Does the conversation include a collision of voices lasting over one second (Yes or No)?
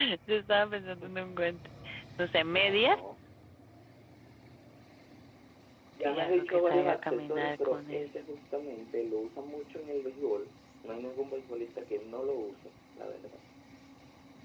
Yes